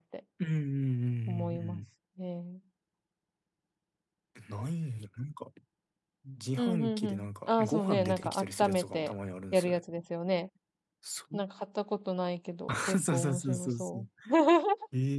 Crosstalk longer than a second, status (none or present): present